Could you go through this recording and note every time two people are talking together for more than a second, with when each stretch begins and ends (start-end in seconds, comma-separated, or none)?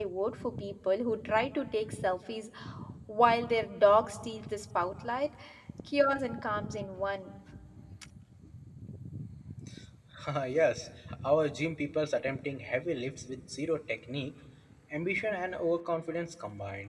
none